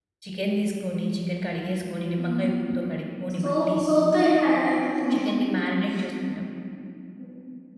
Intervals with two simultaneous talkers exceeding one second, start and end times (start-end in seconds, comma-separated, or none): none